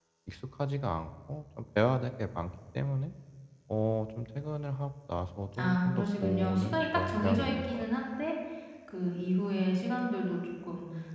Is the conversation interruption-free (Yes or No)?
No